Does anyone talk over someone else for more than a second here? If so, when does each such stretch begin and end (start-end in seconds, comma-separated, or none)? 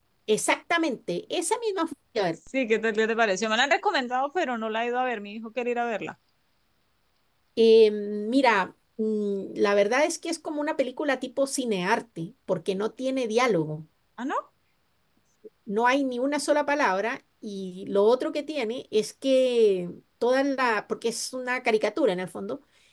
none